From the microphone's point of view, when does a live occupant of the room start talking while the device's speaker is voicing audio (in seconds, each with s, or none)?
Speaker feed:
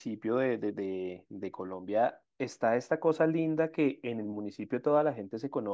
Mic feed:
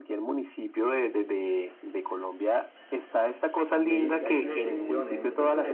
3.7 s